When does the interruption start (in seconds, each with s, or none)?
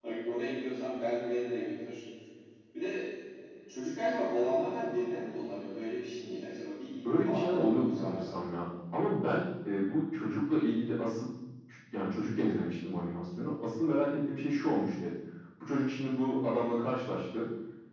7.0 s